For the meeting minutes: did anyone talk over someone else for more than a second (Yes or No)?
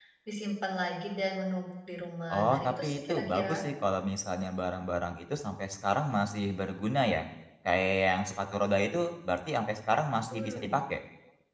Yes